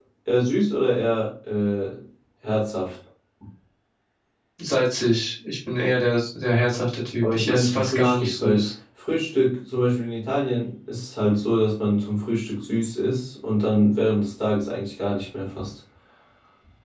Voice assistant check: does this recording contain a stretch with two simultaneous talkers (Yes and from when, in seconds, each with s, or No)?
Yes, from 7.2 s